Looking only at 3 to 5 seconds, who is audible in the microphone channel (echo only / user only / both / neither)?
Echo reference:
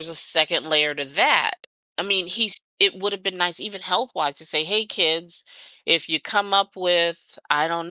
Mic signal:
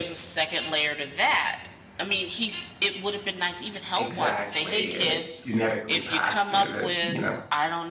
both